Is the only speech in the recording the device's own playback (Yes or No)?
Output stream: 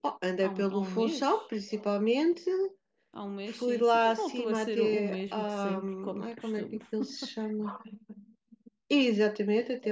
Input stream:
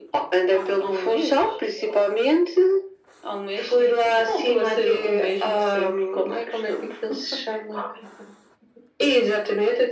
Yes